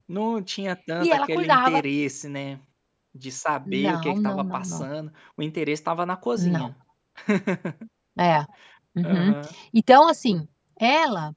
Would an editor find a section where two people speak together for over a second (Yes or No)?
Yes